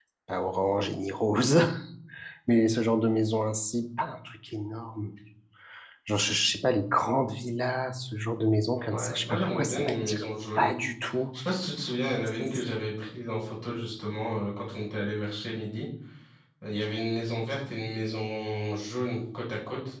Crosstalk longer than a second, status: present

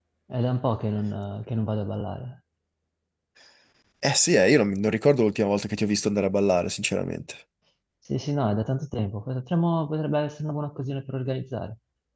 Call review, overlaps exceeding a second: none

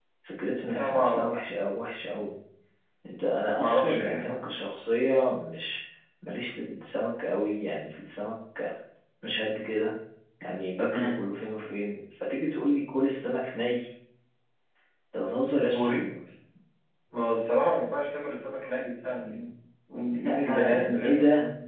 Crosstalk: present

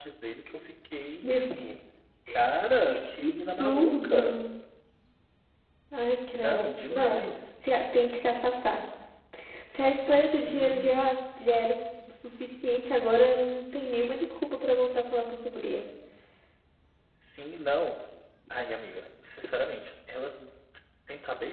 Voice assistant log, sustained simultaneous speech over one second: present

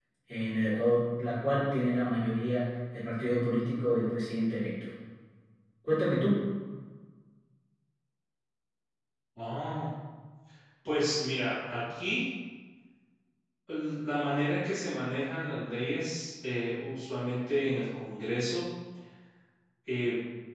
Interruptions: none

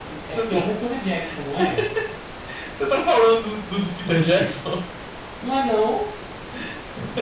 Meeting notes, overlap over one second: none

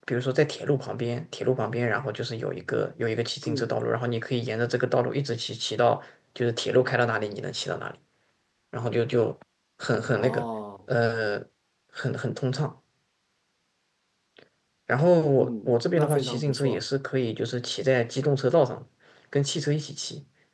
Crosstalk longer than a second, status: present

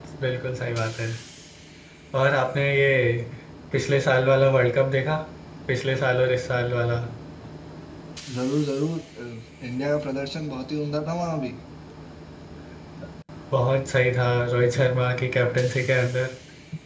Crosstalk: none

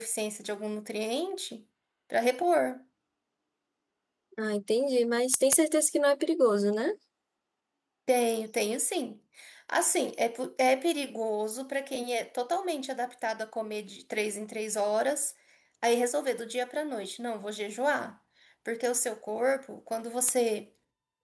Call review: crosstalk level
none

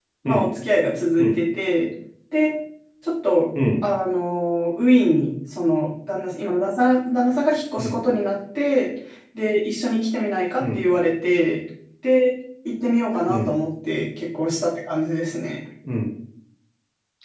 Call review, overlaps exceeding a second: none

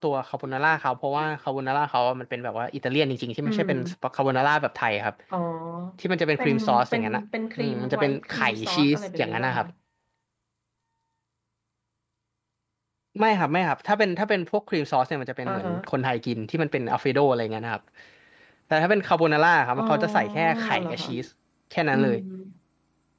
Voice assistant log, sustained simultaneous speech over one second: present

